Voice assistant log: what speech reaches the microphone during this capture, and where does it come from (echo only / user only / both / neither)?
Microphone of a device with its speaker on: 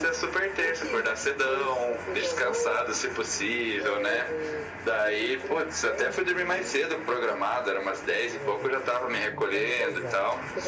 both